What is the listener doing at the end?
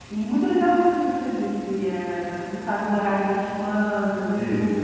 listening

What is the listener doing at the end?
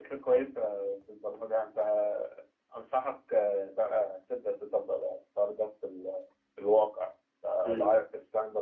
listening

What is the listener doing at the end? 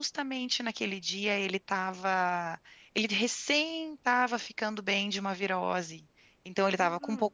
listening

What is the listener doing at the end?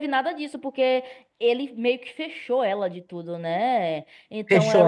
taking over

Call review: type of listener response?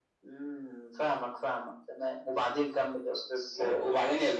taking over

